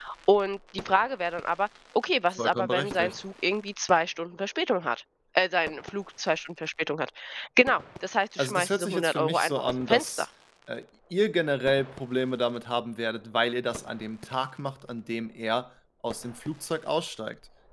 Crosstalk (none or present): present